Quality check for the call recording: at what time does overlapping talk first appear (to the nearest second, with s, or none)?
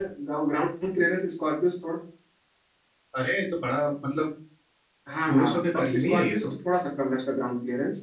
5 s